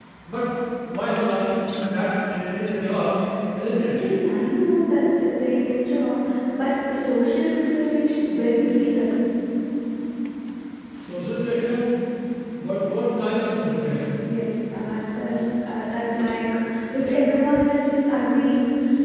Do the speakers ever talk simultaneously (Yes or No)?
No